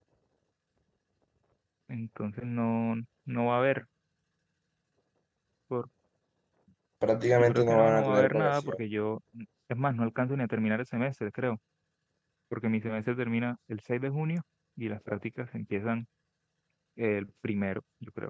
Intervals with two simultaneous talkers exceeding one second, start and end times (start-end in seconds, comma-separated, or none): 7.3-8.8